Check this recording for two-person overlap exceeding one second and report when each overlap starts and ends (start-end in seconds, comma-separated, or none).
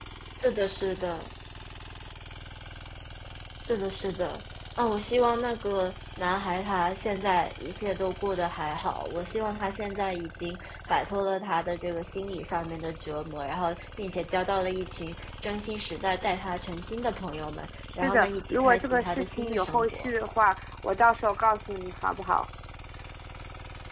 18.0-20.1